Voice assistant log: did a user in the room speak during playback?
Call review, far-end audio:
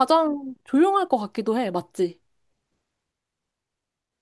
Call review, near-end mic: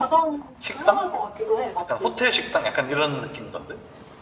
Yes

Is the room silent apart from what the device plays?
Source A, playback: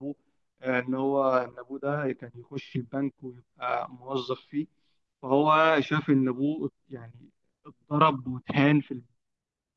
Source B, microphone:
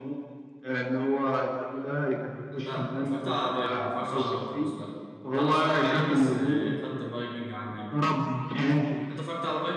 No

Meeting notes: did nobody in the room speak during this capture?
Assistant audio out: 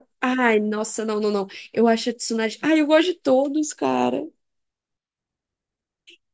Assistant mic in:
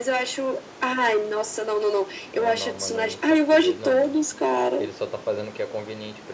No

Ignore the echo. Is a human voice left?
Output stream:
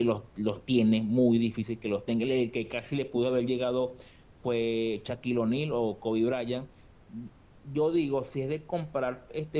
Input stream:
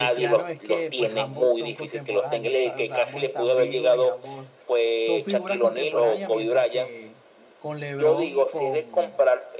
Yes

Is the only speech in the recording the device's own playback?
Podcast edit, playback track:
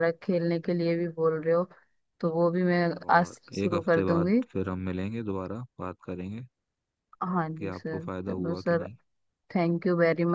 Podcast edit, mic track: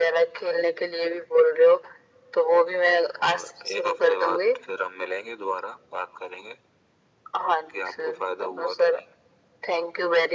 Yes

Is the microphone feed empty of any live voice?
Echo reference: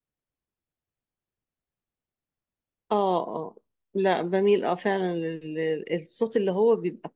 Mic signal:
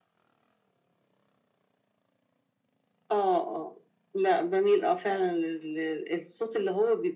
Yes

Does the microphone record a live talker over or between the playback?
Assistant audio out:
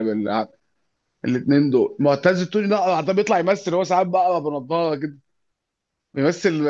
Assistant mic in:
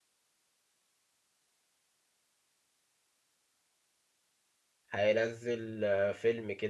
Yes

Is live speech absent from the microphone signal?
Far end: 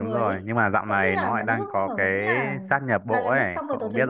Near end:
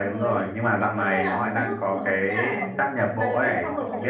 No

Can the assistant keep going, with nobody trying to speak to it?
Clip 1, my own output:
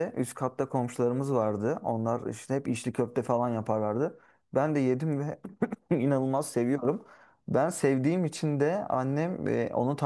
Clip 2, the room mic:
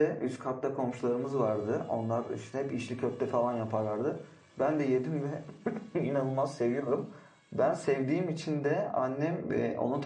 Yes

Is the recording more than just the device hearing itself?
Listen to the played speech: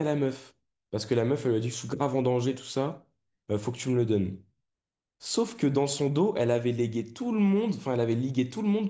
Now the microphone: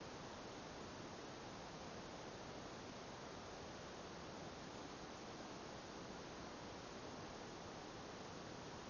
No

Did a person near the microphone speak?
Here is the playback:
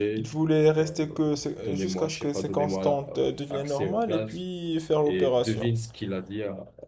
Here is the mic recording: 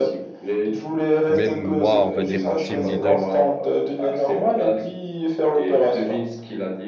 Yes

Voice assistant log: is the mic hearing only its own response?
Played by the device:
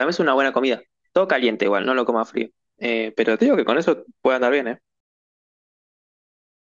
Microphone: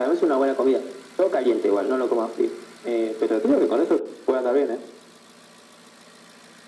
Yes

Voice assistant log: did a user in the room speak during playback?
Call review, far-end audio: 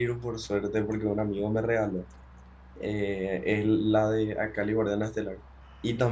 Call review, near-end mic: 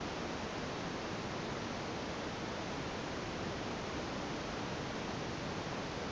No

